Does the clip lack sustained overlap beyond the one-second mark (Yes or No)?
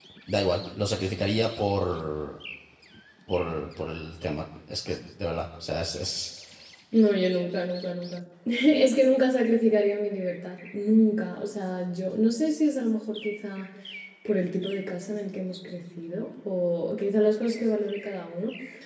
Yes